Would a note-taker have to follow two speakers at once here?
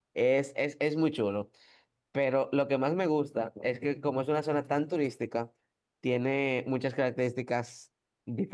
No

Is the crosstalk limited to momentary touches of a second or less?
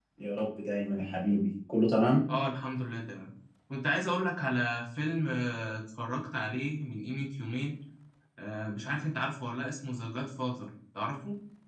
Yes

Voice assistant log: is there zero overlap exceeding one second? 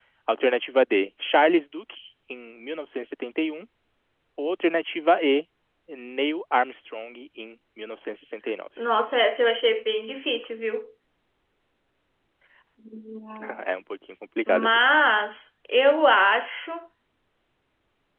Yes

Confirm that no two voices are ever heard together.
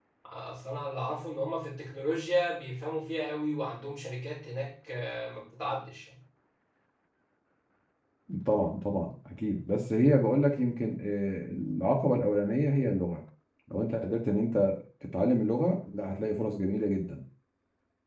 Yes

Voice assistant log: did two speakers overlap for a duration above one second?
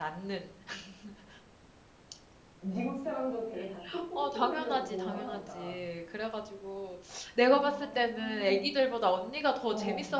Yes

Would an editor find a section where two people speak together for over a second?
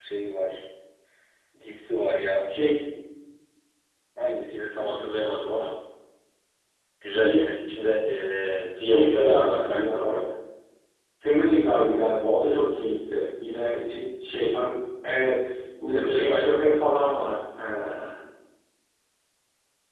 Yes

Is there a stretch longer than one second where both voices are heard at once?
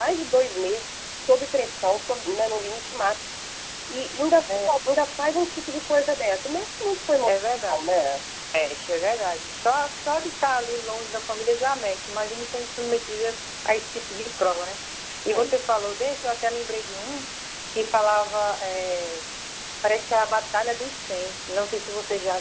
No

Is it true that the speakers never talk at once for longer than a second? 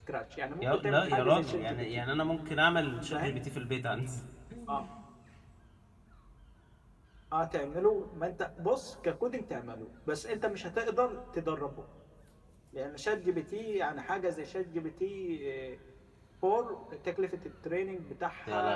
No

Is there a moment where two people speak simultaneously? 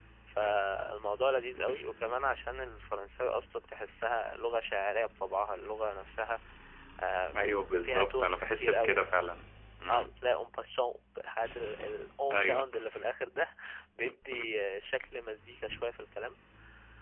Yes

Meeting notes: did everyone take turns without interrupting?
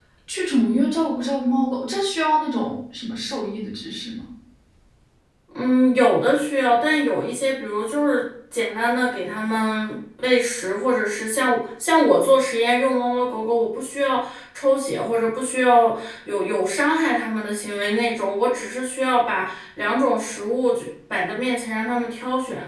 Yes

